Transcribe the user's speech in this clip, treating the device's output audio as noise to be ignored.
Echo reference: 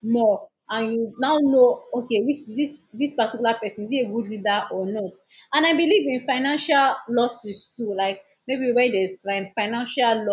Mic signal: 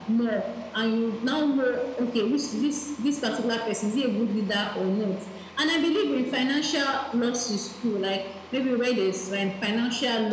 none

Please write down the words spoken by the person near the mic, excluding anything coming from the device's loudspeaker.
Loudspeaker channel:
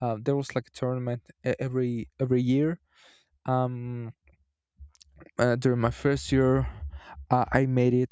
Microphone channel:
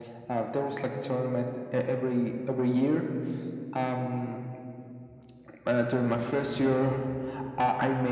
none

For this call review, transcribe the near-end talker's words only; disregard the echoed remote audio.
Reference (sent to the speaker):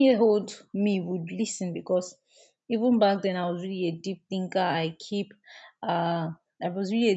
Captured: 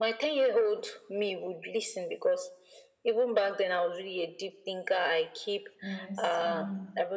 Yes. Um,

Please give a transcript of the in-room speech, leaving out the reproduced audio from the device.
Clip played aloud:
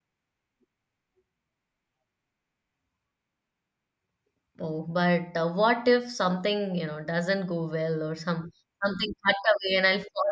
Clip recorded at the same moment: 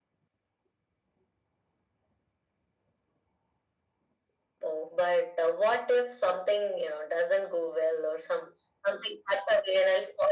none

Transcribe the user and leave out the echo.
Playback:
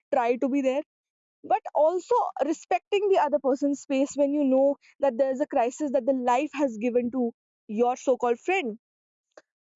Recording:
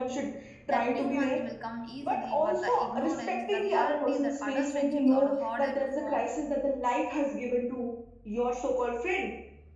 that new ones will come easily but the ignorance the reality that adult friendships are harder to form

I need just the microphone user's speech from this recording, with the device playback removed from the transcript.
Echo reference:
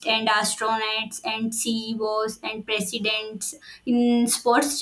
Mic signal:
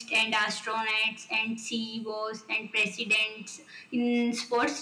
none

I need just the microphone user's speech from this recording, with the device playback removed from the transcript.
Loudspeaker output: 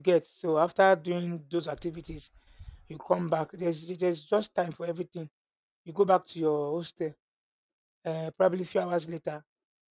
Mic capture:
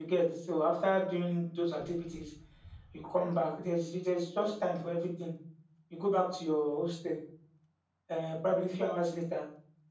none

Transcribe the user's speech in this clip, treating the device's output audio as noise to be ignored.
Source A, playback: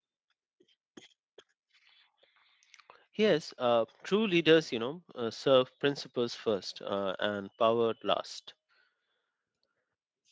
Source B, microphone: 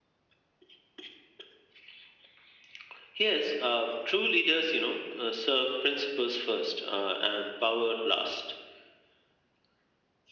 none

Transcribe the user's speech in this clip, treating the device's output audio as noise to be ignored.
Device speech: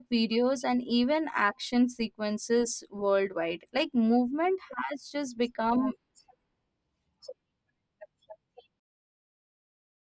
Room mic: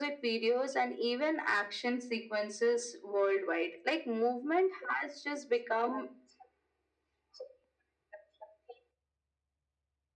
none

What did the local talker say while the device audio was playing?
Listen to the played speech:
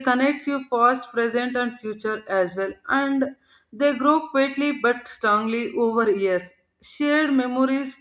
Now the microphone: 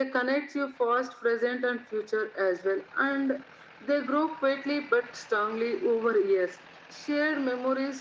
none

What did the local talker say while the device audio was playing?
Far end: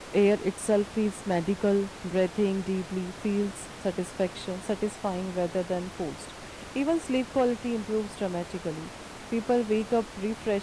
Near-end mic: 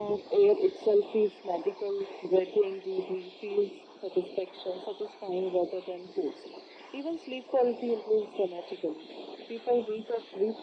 none

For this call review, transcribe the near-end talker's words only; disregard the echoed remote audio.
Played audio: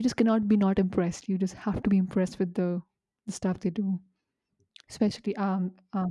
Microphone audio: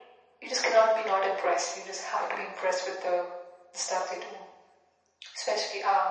none

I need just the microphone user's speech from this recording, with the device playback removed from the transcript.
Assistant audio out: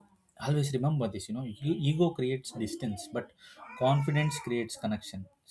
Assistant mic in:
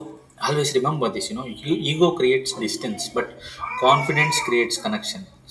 none

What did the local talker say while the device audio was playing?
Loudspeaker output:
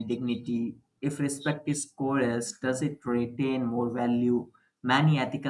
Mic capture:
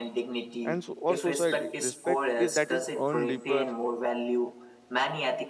and so, or society respect is that is earned deeper

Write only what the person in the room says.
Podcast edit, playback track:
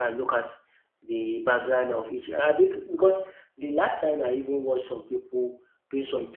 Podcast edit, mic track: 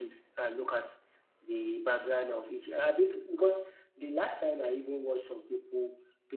none

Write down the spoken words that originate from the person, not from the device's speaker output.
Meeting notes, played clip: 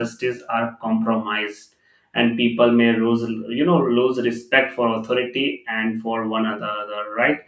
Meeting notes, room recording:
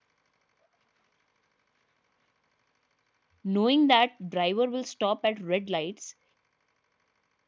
knowing that driver will stop at red lights

